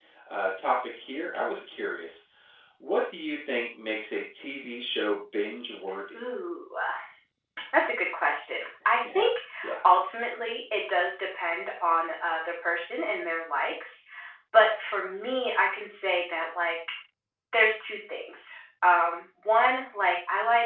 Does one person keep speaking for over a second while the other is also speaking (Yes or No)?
No